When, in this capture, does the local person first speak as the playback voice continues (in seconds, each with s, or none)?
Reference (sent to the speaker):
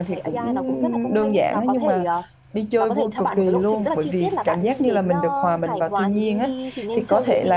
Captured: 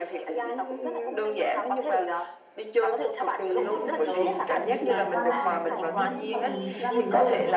3.5 s